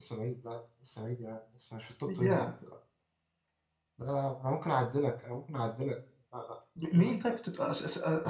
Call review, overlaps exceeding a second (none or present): none